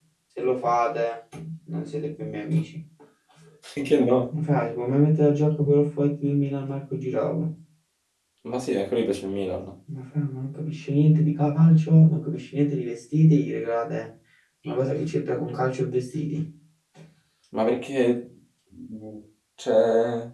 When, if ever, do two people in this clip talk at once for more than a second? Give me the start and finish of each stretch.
none

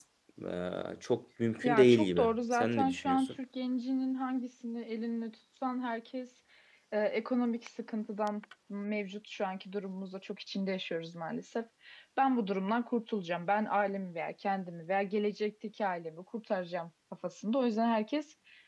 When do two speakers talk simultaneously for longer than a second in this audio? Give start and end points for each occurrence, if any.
1.6-3.3

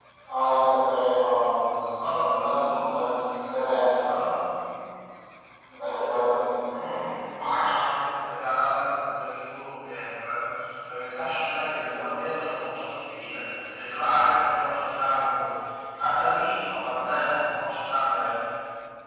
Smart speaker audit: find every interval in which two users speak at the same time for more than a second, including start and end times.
1.8-3.0

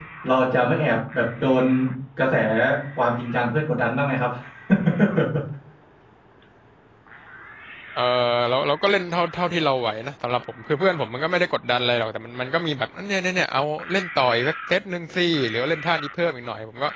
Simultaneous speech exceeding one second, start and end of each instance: none

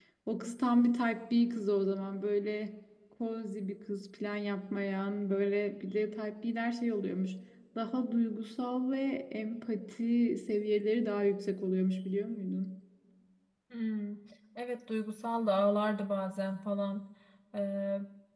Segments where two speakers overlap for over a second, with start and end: none

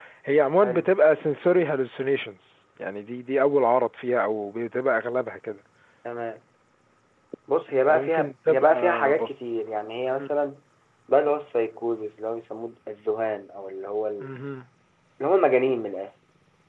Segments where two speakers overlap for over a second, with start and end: 7.9-9.3

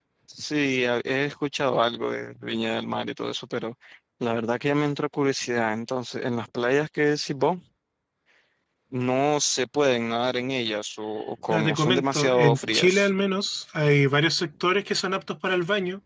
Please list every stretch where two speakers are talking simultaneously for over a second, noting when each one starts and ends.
11.5-13.1

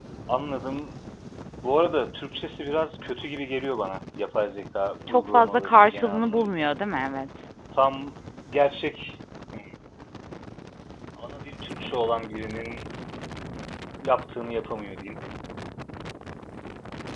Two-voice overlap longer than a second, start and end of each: 5.1-6.6

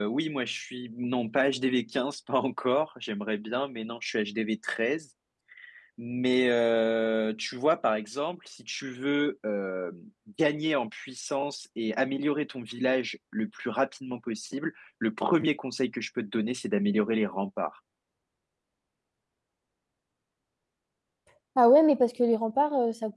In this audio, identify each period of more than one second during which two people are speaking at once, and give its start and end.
none

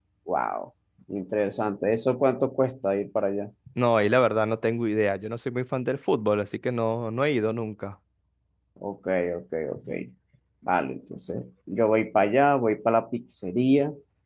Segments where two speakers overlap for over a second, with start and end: none

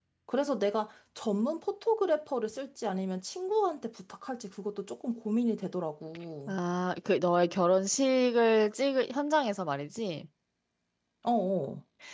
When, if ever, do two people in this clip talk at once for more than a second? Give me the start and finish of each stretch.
none

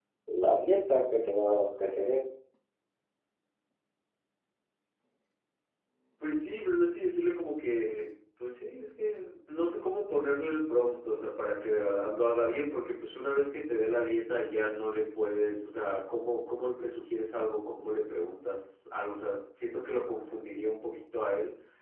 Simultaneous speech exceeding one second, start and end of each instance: none

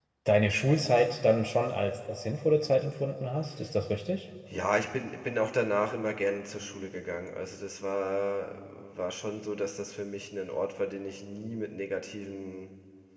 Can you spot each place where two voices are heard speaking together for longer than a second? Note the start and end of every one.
none

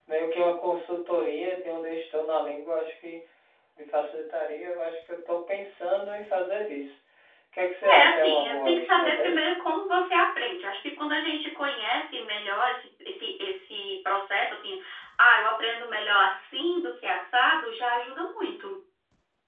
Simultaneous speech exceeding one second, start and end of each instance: 8.0-9.3

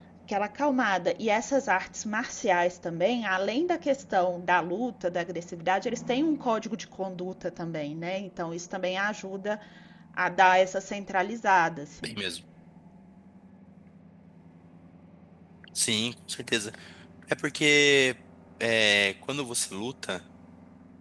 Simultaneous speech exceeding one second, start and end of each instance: none

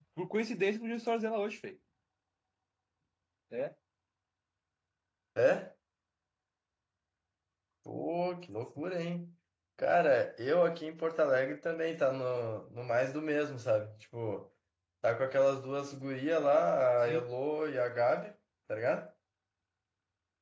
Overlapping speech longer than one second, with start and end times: none

